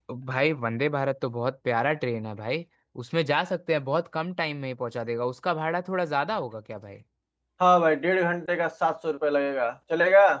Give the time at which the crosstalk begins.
none

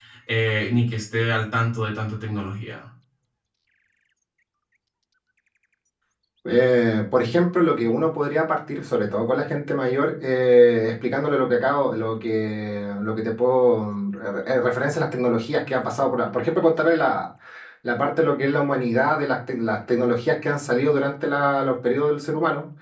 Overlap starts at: none

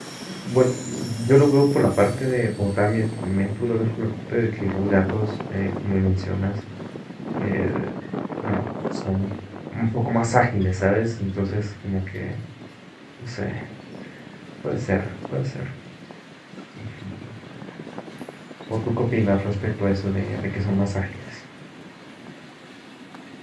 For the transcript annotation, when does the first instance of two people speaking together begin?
none

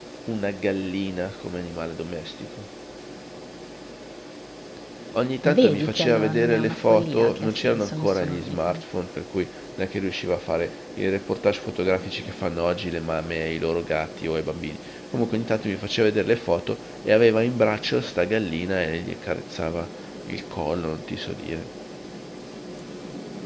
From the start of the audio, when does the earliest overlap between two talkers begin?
5 s

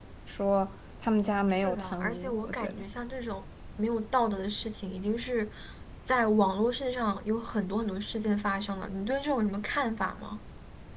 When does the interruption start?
2 s

